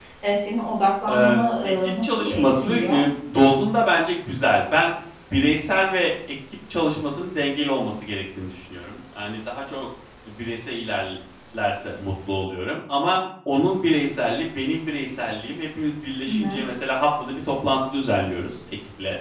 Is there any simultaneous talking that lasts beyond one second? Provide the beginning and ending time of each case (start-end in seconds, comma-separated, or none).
1.1-3.0